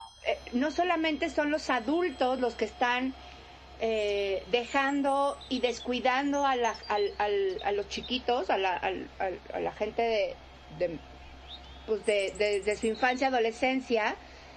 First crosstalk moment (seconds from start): none

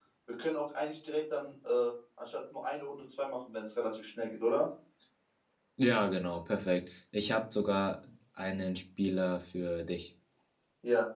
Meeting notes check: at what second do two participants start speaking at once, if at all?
none

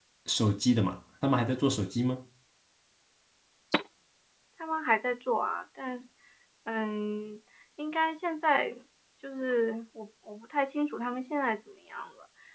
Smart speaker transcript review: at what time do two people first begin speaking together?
none

